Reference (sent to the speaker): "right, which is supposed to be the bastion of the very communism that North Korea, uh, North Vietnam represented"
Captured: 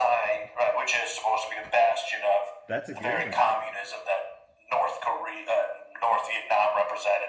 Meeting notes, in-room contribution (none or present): present